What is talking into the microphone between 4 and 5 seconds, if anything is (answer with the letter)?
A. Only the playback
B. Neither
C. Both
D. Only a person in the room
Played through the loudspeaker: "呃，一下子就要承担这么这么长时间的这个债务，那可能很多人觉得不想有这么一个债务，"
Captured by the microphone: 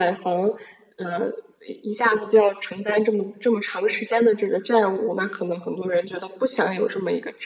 A